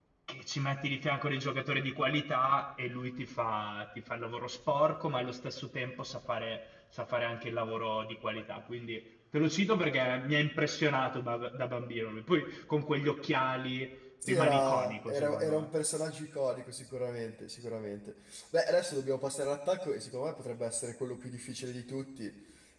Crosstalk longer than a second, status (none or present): present